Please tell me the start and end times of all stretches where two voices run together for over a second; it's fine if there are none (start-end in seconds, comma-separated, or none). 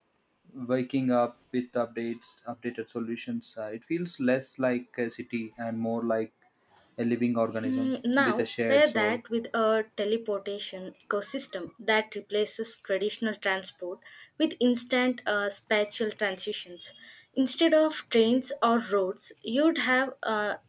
7.6-9.2